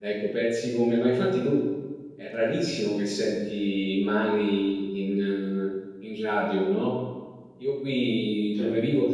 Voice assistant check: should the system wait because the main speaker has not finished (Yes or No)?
Yes